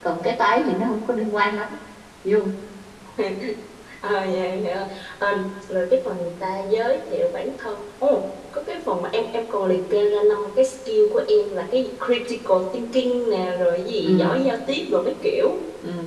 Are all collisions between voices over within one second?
Yes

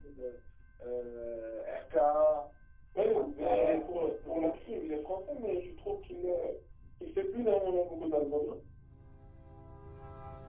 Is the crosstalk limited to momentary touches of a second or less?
No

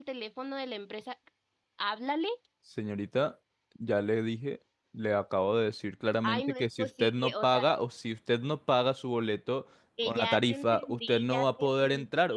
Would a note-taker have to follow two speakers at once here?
Yes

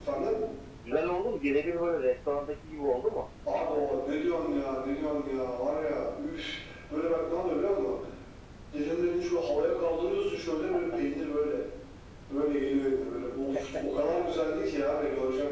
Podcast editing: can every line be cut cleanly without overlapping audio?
Yes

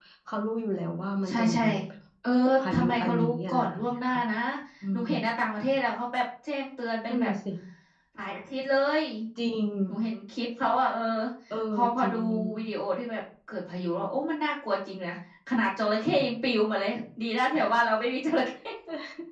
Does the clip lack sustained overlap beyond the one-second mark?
No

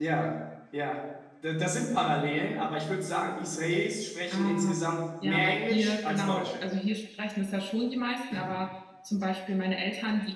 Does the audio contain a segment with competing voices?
Yes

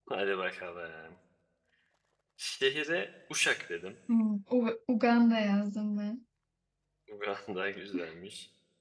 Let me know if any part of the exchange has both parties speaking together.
No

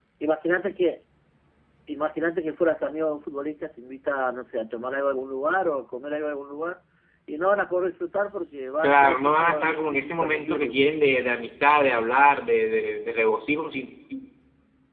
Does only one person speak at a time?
No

